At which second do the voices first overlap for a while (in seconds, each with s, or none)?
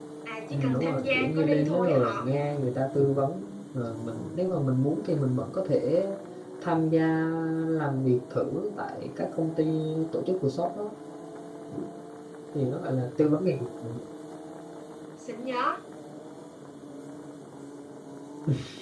0.5 s